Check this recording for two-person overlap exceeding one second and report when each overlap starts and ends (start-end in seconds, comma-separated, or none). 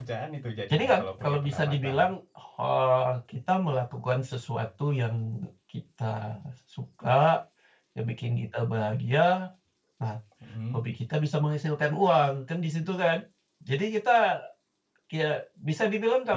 0.7-2.1